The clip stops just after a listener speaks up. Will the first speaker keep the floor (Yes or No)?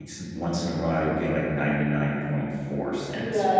No